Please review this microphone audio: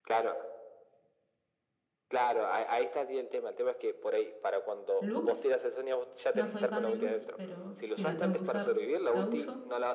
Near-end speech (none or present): present